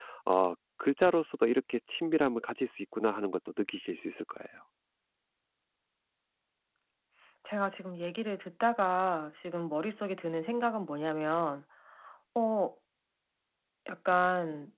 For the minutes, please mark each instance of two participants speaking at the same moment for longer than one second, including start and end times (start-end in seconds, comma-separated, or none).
none